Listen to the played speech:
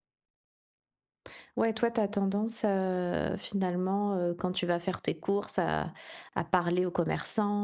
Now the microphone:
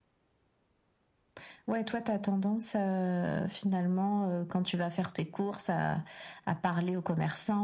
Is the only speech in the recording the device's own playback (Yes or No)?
Yes